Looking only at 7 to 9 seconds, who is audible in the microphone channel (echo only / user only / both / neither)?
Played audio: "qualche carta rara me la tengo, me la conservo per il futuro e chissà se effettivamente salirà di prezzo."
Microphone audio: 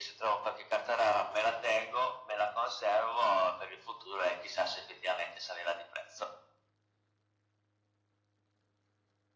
neither